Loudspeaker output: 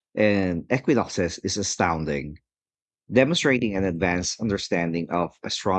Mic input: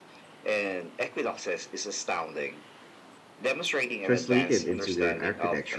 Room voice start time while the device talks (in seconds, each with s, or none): 4.0 s